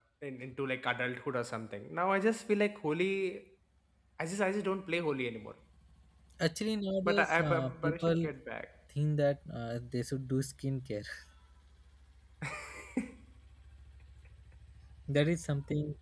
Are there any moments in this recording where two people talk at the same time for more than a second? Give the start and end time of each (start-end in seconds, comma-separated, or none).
7.1-8.3